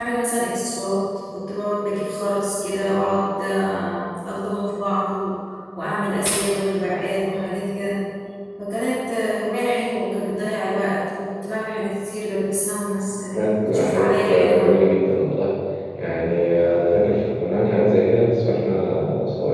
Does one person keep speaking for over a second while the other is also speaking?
Yes, from 13.3 s

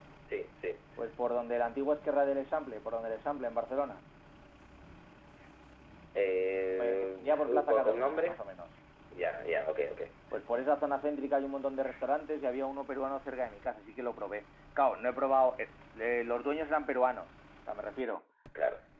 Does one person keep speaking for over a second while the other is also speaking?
Yes, from 6.7 s

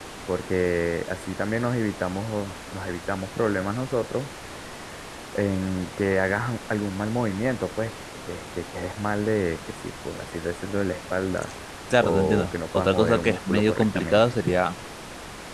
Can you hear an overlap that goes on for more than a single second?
Yes, from 12.0 s

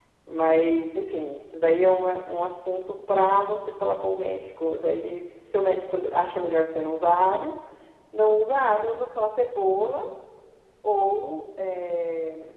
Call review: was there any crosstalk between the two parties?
No

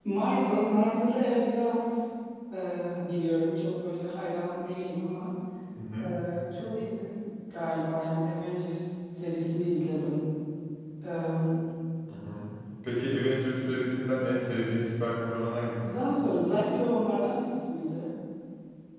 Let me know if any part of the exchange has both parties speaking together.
No

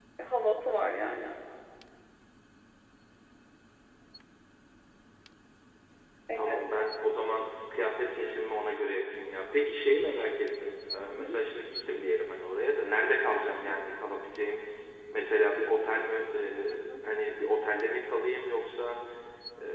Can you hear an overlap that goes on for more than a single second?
No

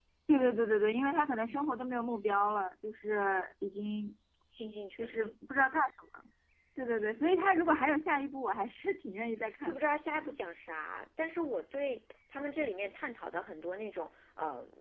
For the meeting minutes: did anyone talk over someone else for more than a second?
No

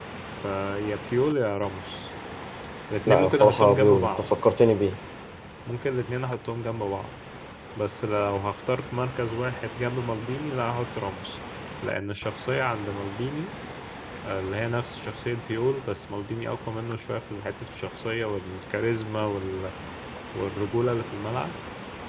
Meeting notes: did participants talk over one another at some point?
Yes, from 3.1 s

